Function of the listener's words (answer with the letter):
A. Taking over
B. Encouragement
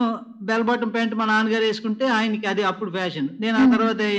B